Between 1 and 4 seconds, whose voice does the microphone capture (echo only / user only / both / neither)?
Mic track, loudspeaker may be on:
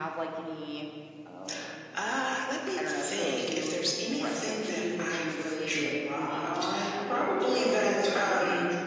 echo only